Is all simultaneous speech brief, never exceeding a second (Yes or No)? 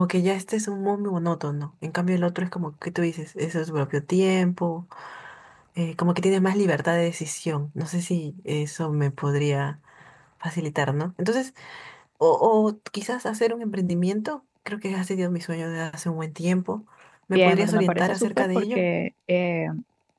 No